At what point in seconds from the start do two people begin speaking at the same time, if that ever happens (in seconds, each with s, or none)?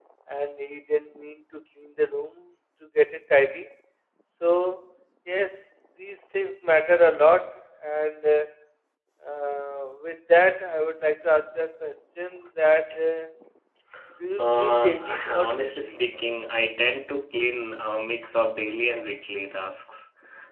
14.4 s